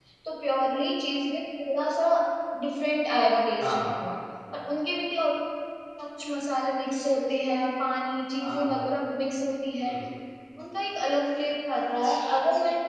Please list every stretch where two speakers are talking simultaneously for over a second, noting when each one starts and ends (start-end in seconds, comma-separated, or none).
none